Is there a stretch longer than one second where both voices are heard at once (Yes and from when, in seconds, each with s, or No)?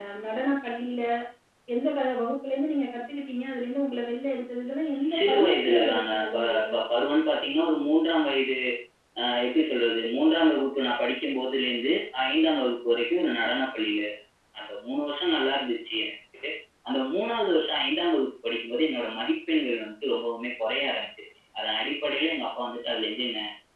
Yes, from 5.0 s